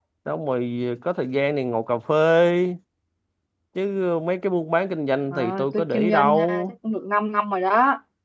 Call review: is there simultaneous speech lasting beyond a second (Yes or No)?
Yes